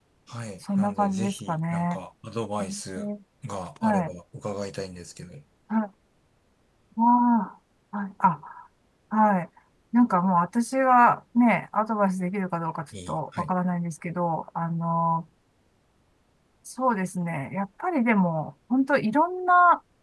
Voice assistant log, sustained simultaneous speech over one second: present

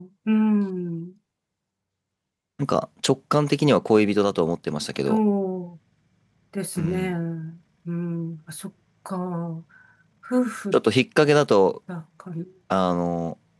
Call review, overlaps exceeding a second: none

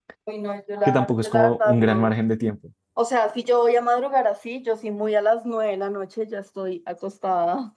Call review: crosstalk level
present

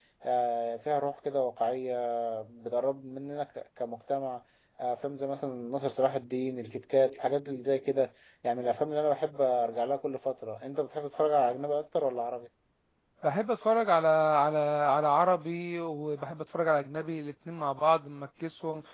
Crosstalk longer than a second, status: none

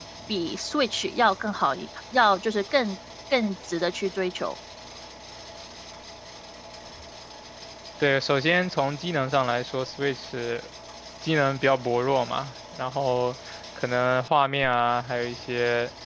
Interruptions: none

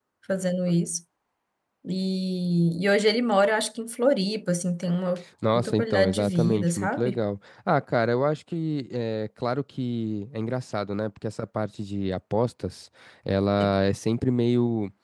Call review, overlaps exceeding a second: present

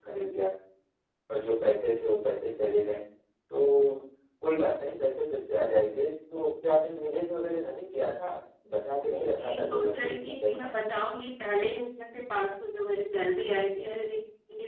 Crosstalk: present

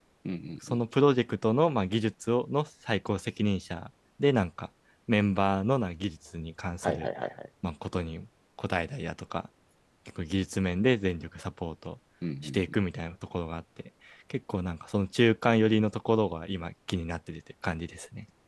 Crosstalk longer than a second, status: none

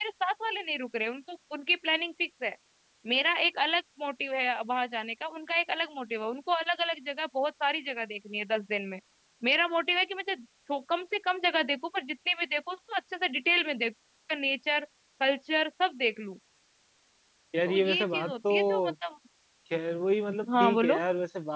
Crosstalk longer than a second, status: present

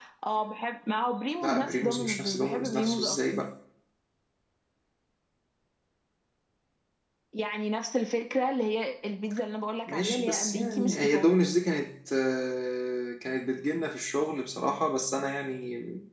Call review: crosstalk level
present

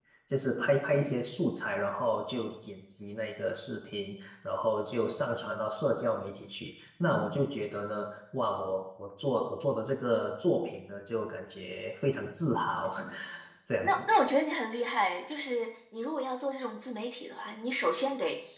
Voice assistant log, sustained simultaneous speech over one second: none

